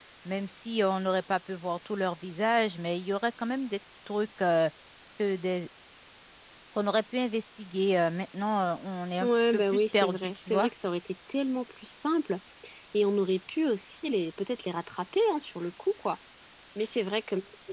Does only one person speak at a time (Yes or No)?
No